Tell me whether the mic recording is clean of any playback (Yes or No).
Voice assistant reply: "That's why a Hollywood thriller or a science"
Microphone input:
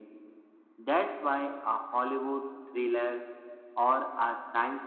No